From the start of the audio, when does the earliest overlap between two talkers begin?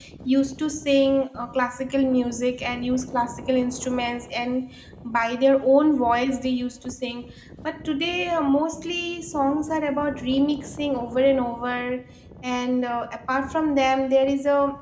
none

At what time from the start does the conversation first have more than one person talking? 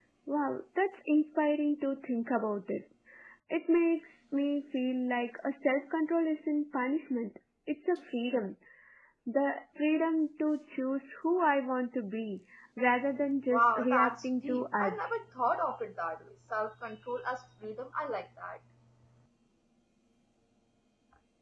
13.5 s

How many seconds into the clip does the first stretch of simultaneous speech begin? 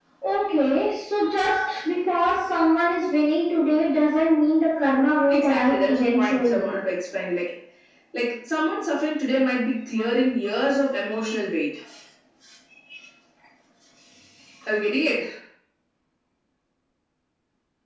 5.3 s

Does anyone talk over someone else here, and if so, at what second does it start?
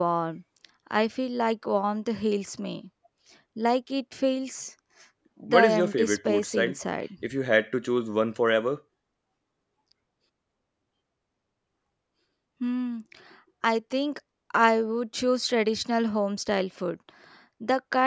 5.5 s

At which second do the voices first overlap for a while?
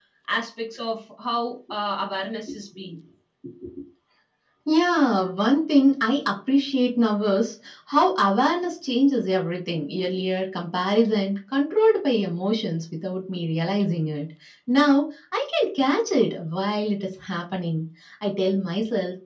none

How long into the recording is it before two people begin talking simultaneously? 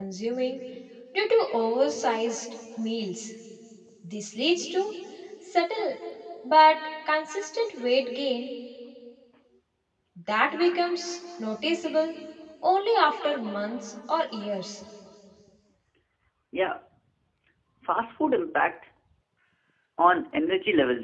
none

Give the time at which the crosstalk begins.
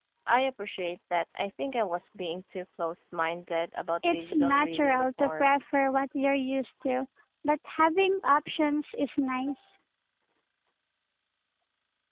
4.0 s

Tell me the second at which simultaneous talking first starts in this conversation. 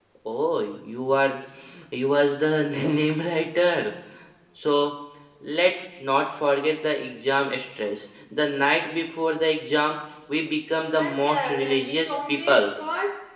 10.9 s

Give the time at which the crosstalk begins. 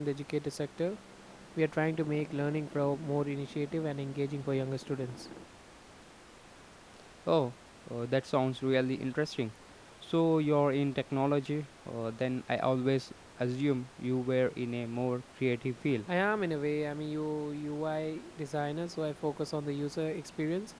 none

